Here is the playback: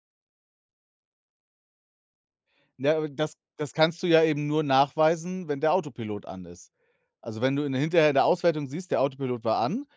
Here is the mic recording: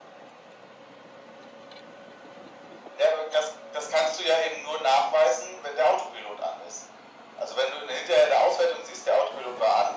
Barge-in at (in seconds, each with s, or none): none